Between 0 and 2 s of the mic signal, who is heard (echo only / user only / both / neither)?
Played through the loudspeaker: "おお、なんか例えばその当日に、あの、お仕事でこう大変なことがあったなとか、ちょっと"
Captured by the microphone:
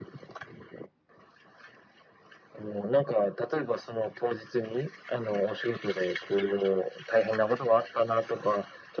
neither